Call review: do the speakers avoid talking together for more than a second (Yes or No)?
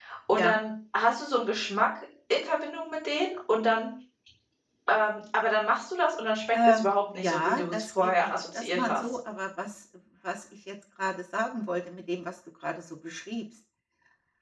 No